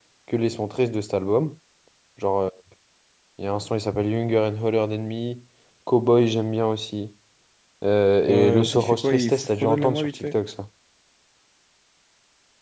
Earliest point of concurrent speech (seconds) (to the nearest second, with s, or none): 8 s